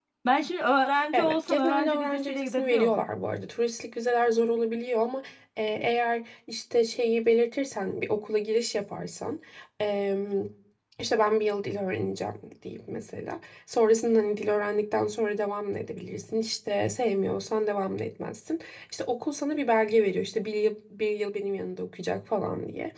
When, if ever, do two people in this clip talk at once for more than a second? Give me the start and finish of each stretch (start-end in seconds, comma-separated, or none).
1.1-2.9